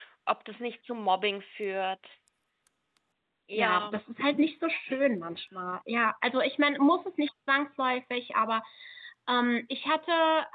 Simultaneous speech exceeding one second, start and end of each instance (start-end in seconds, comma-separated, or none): none